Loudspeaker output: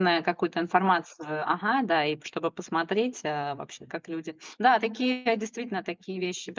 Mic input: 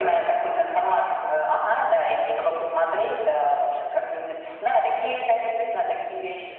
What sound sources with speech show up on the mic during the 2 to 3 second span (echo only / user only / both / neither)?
echo only